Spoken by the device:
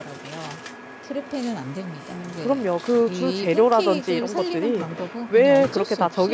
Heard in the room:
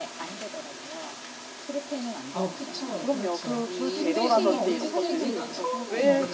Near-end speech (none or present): present